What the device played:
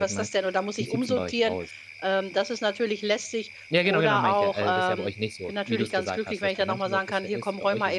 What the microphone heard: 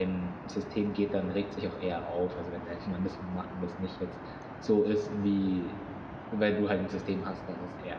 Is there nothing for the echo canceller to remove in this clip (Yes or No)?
Yes